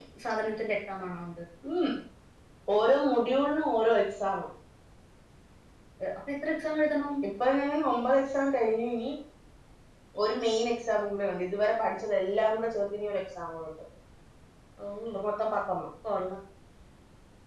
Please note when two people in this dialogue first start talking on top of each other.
none

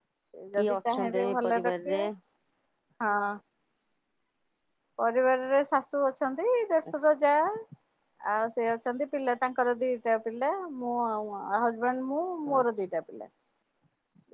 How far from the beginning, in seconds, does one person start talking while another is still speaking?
0.6 s

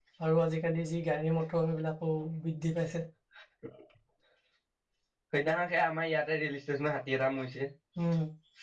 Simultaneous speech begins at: none

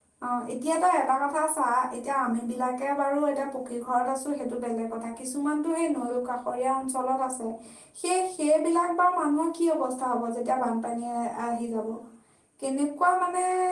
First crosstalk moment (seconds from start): none

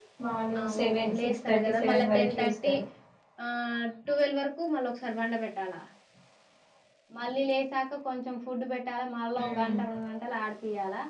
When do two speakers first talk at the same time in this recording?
0.6 s

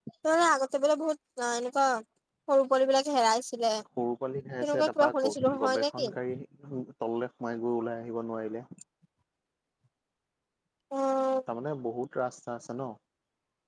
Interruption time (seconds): 4.6 s

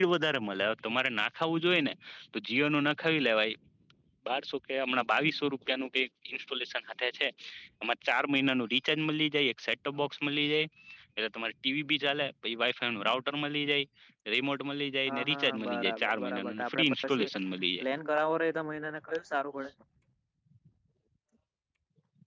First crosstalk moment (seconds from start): 15.1 s

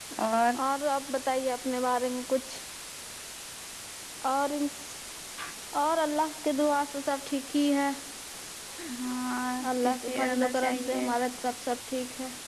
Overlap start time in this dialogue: 9.8 s

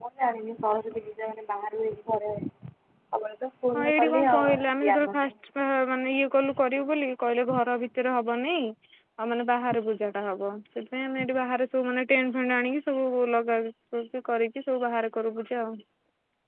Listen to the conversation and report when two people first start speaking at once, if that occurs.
3.8 s

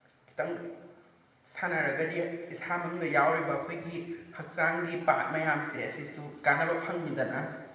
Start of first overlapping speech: none

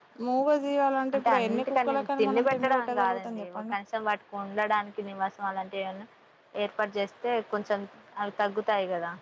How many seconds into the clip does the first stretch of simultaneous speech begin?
1.1 s

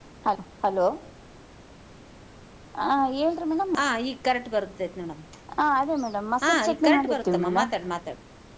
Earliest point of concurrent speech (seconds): 6.4 s

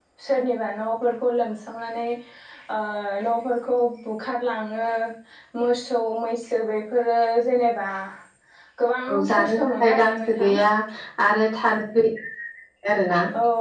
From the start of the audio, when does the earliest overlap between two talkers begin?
9.1 s

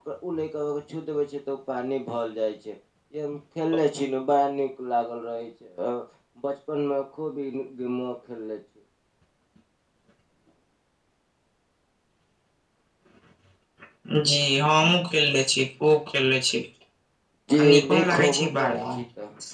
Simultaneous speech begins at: 17.6 s

